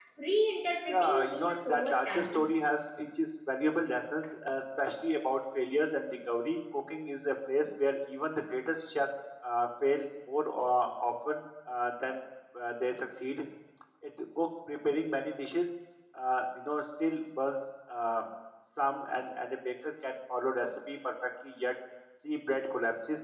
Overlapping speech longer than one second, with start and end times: 0.9-2.4

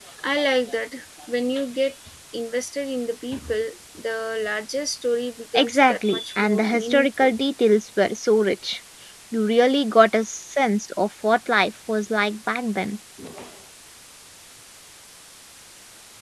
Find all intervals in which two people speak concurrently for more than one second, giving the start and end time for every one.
5.5-7.3

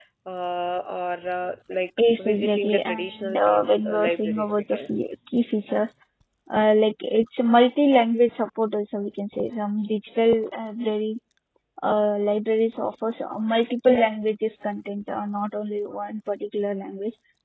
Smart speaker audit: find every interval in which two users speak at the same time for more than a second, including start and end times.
2.2-5.0

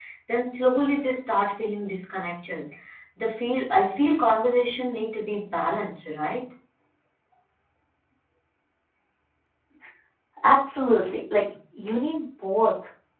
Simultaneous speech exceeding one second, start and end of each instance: none

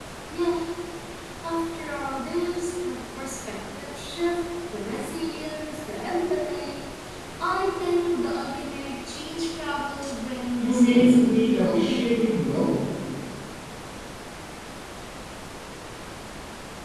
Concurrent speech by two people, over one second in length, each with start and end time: 10.6-12.7

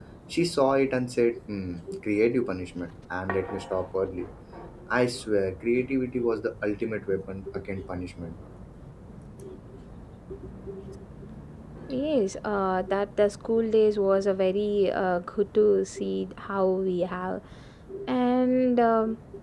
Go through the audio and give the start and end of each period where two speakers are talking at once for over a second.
none

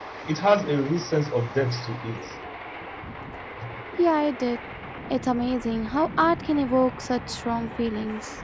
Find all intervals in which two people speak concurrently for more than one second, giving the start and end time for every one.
none

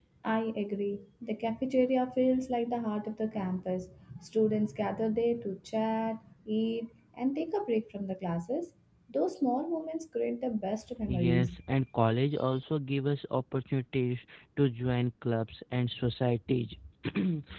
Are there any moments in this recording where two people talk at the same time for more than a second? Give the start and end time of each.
none

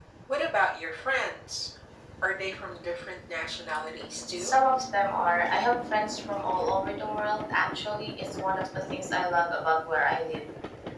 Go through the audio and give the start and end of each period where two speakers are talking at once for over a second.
none

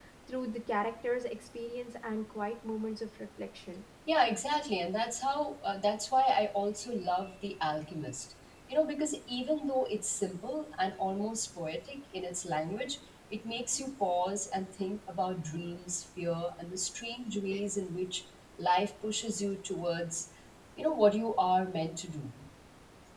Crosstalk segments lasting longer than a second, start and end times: none

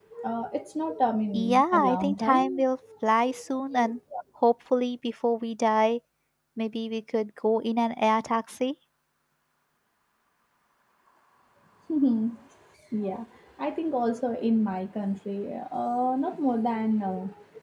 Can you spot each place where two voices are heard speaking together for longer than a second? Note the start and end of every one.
1.3-2.6

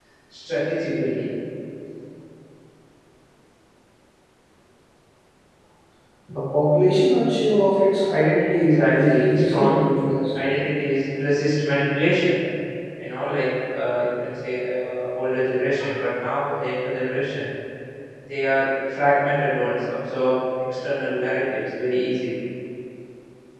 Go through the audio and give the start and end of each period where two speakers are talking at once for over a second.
8.6-9.9

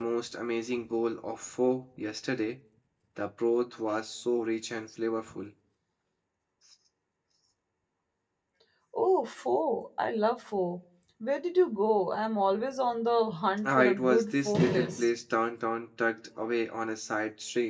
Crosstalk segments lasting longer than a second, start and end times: 13.6-15.1

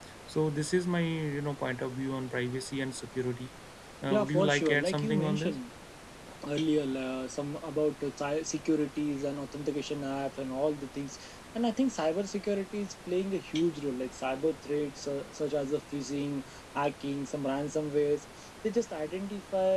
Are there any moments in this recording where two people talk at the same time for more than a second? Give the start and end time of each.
4.1-5.6

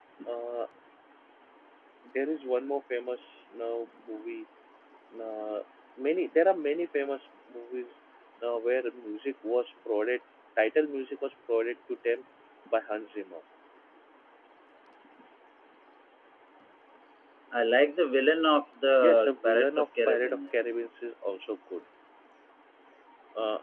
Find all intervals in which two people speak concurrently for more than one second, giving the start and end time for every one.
19.0-20.6

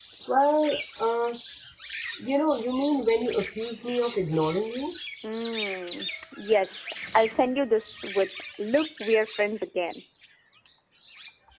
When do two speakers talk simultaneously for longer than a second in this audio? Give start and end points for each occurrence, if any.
none

